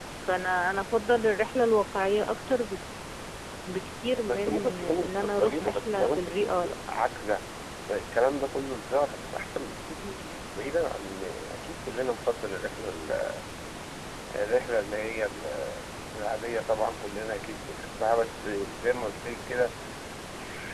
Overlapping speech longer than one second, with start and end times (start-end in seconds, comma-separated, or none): 4.3-6.7